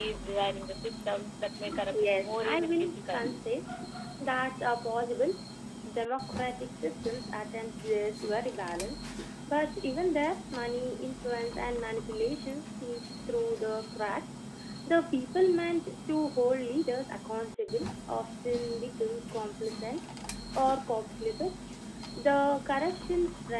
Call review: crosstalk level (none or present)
present